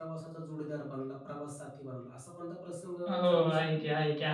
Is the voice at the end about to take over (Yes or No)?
Yes